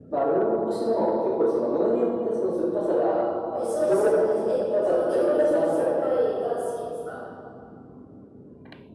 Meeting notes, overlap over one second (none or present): present